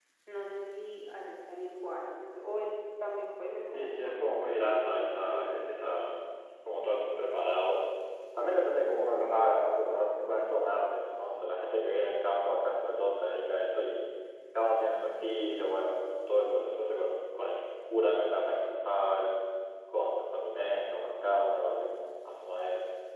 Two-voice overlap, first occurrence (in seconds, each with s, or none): 3.7 s